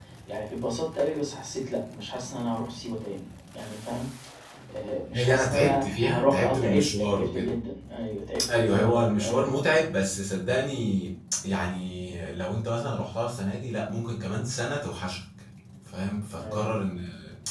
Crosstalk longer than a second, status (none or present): present